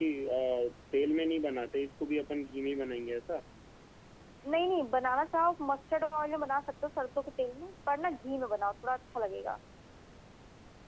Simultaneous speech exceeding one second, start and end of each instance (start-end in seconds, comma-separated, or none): none